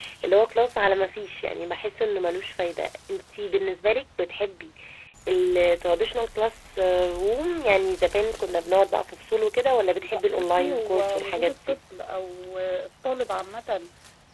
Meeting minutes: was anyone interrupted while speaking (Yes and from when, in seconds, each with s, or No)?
Yes, from 10.1 s